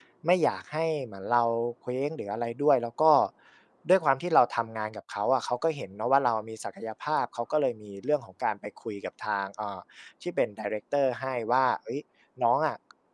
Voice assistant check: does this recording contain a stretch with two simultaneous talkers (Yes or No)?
No